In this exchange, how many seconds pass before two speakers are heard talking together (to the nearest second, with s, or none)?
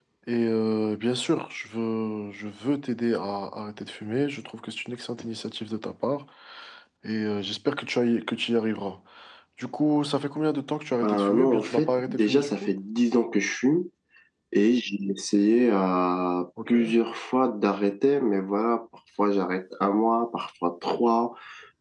11 s